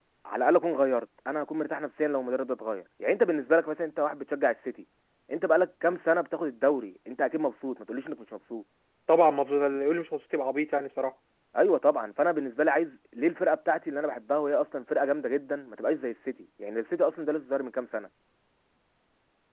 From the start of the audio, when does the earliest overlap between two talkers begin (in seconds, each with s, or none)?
none